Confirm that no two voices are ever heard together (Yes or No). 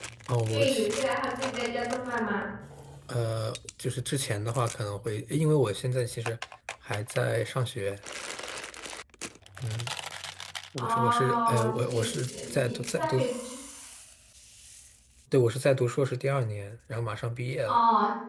No